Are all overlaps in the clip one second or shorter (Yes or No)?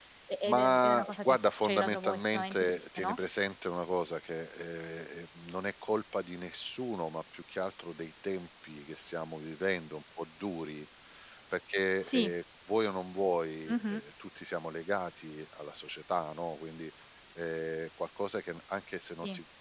No